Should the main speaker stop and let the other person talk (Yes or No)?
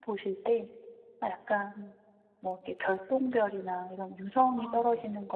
No